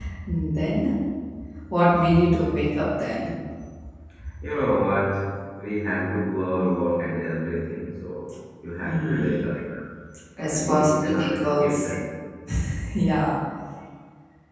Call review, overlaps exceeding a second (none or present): present